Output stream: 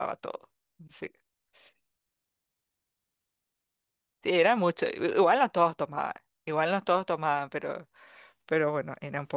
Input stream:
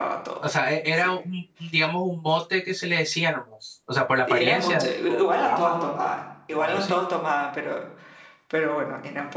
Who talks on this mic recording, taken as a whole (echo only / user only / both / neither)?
both